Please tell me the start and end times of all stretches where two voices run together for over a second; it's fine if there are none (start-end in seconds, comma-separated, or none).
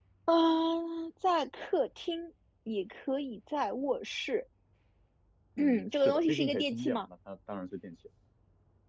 5.6-7.0